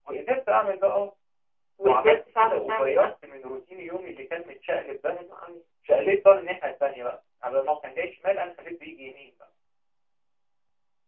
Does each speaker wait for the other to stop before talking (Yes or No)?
No